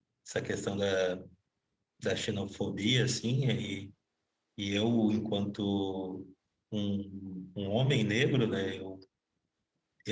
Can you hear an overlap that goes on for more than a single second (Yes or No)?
No